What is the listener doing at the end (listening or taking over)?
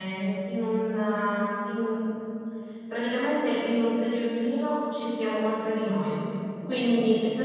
listening